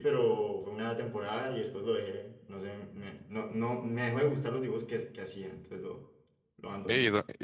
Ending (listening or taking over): taking over